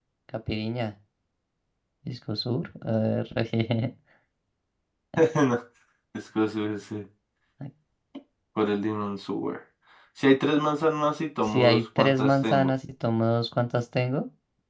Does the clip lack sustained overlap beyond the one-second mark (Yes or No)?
No